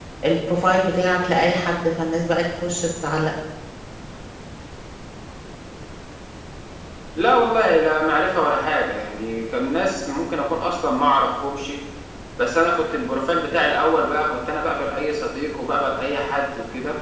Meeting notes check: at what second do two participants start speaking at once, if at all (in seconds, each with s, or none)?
none